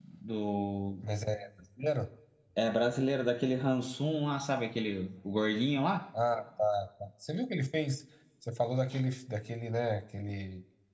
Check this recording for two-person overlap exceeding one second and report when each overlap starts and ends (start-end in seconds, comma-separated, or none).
none